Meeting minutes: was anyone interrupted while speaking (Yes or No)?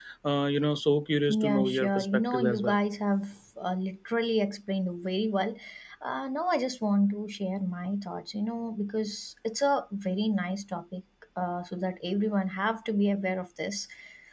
Yes